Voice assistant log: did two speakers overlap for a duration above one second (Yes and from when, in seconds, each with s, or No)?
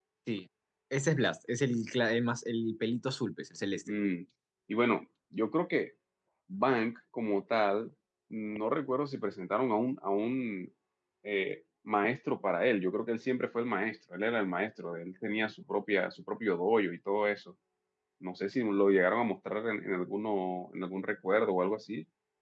No